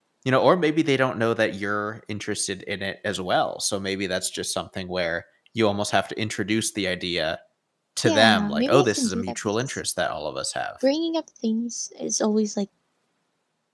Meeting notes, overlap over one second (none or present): present